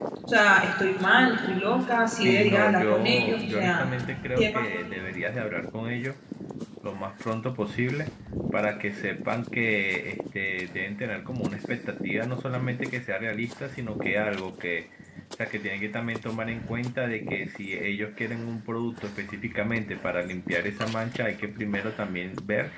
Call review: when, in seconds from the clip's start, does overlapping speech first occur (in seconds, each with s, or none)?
2.2 s